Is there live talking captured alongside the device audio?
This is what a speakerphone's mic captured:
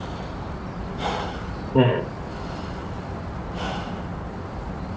Yes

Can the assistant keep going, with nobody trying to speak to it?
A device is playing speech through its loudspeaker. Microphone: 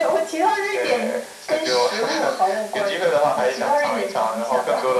Yes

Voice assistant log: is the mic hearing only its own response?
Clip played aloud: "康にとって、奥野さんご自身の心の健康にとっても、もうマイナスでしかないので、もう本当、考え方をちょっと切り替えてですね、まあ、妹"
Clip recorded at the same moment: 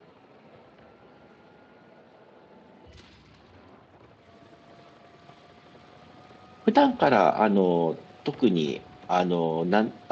No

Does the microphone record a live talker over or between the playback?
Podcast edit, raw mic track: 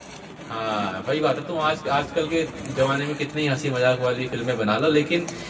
Yes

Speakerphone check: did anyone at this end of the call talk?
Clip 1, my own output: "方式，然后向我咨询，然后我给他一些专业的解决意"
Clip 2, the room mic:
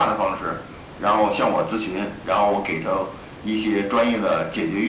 No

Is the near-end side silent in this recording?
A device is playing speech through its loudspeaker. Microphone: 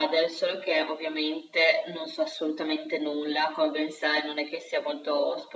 Yes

